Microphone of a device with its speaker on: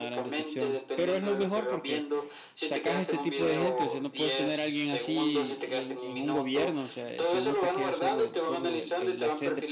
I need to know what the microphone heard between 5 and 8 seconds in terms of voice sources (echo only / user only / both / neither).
both